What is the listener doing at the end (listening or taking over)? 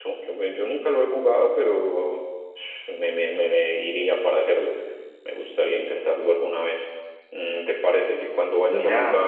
listening